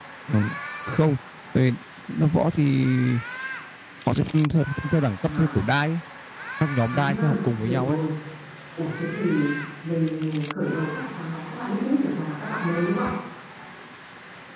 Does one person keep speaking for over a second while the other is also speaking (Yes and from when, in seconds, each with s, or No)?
No